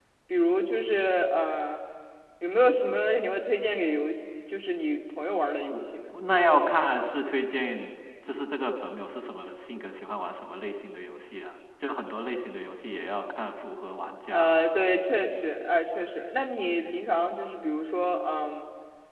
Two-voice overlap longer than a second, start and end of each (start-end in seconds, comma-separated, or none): none